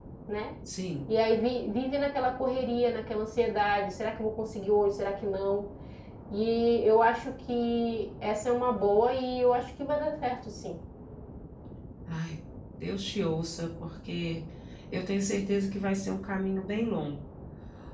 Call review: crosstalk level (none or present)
none